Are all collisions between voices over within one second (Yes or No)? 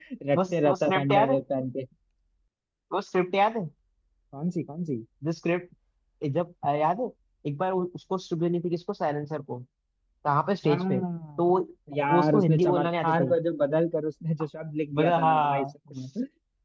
No